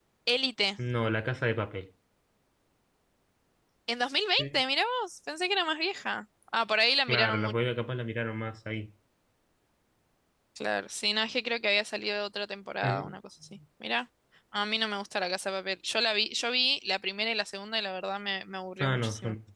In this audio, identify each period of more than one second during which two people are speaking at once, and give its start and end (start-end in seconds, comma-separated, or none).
none